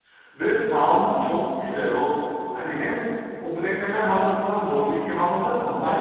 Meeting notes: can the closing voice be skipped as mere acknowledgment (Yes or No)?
Yes